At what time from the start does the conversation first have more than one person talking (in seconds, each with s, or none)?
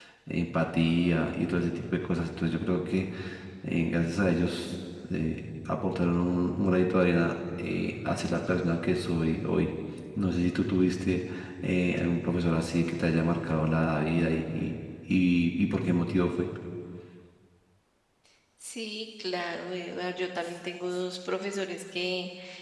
none